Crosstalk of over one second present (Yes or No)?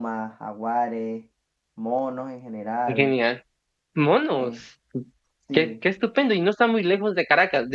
No